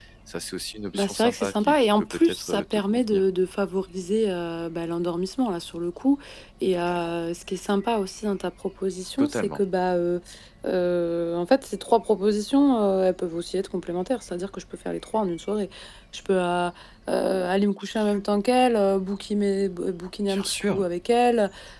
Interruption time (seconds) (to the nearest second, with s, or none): 1 s